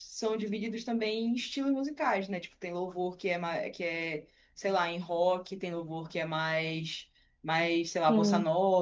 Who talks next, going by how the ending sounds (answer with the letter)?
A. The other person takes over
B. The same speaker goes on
B